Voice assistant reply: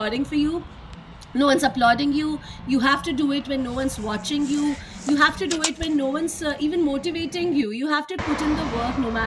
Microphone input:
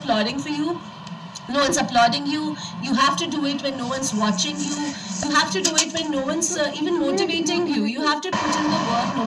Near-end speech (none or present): present